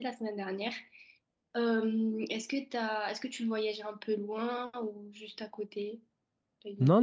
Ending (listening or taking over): taking over